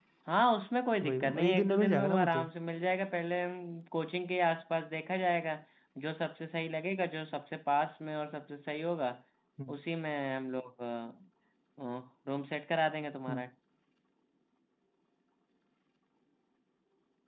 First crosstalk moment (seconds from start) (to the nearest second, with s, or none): 1 s